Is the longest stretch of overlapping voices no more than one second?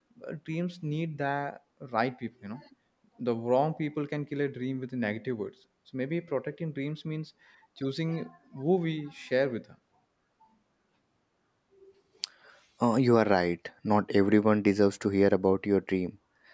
Yes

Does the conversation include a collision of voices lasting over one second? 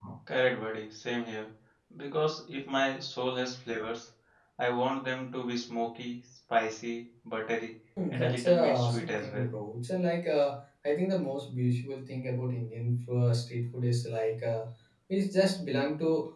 Yes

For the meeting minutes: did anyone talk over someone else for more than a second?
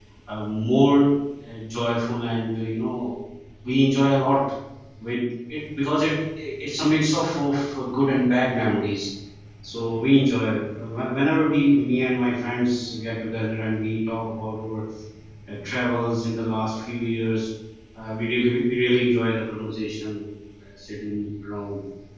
No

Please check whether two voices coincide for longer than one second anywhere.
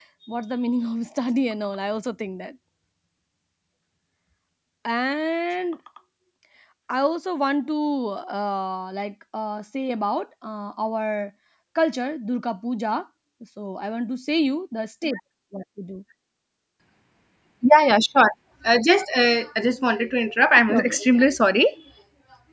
No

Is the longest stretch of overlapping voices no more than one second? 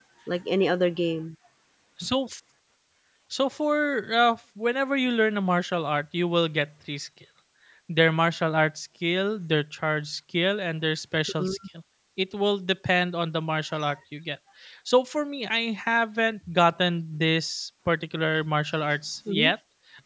Yes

